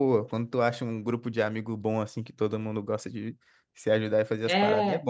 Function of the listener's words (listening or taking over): taking over